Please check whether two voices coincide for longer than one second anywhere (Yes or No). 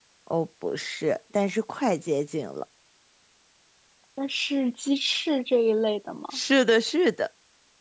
No